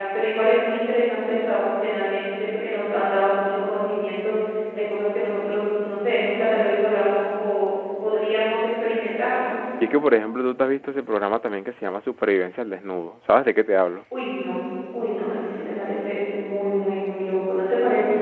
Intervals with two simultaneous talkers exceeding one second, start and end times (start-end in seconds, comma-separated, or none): none